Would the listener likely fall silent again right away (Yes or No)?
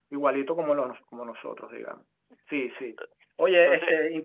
Yes